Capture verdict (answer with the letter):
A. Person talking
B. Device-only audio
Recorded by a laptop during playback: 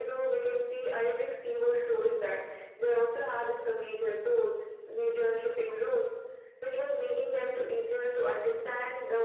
B